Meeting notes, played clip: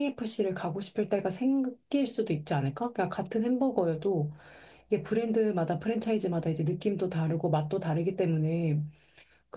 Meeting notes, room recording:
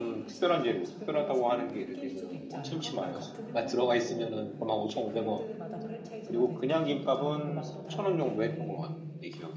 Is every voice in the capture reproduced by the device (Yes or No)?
No